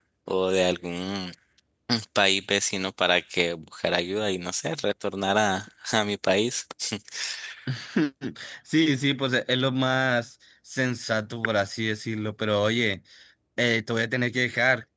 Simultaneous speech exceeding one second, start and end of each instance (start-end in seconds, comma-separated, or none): none